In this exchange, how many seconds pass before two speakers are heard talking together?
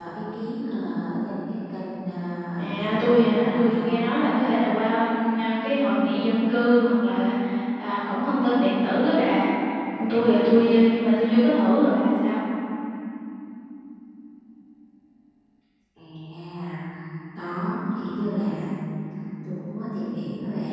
2.5 s

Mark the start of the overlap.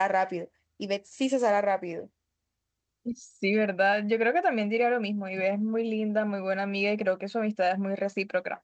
none

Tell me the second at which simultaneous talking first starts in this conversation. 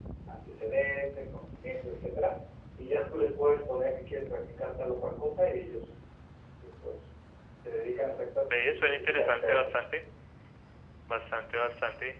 8.5 s

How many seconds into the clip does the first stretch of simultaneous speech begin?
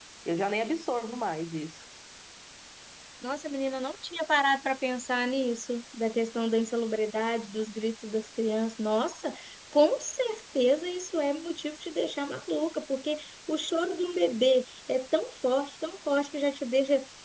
none

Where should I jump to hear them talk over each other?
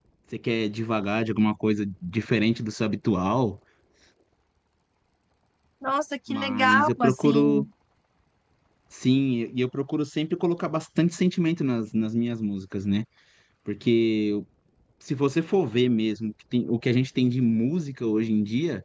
6.3 s

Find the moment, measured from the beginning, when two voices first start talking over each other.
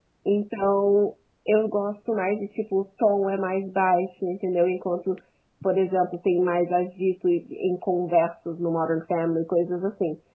none

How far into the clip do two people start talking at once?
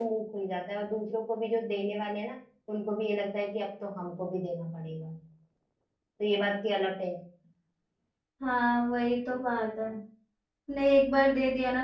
none

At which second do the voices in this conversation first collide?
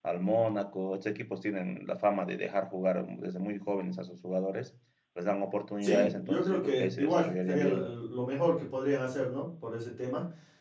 5.8 s

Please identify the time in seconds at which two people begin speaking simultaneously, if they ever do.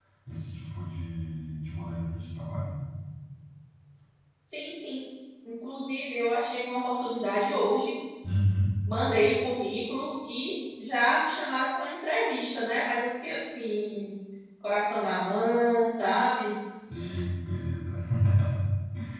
none

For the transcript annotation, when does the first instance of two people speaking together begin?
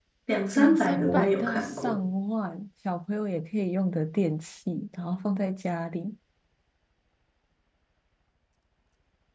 0.6 s

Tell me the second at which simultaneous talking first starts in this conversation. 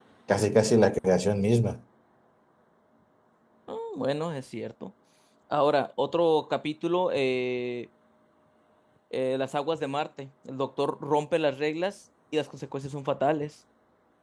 none

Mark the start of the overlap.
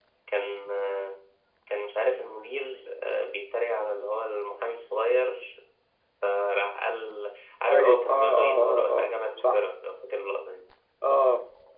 7.7 s

